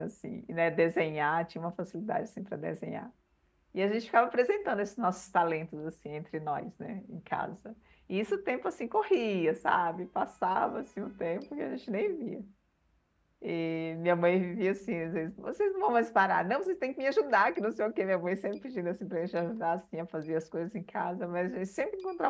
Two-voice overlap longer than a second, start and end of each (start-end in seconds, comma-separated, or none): none